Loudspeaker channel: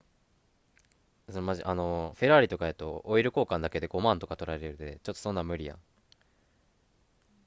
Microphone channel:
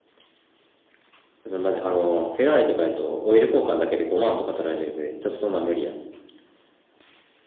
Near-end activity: none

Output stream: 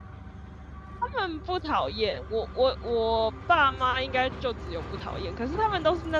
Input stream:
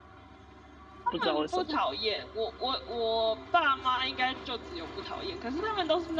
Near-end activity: present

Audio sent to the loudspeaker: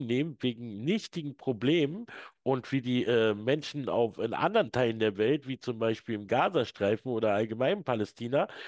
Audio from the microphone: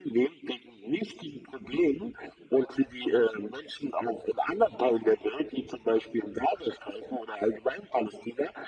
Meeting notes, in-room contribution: none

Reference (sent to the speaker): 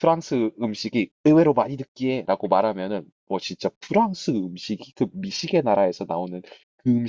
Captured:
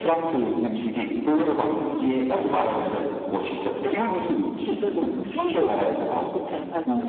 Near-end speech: present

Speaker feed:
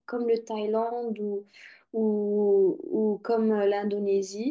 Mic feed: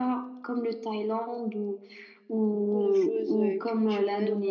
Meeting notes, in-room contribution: present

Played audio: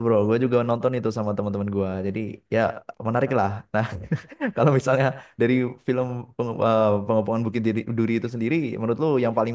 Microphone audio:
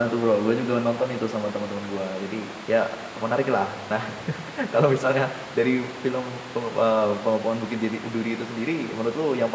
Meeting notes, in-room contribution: none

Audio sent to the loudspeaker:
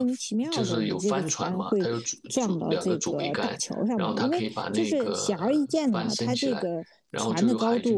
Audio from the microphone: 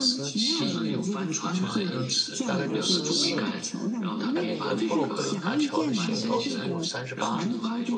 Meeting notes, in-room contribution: present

